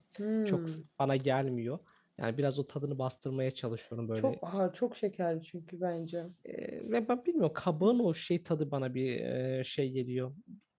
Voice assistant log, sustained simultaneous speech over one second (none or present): none